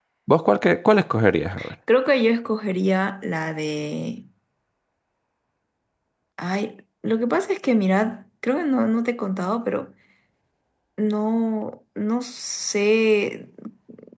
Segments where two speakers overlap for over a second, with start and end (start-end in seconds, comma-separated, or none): none